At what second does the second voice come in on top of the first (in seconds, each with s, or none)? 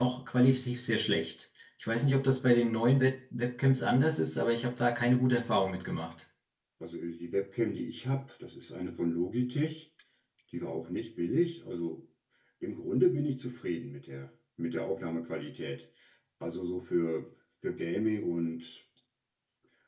none